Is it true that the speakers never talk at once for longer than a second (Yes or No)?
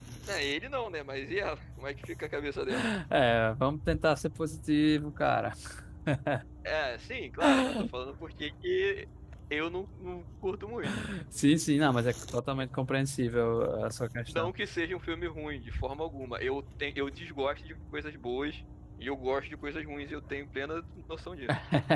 Yes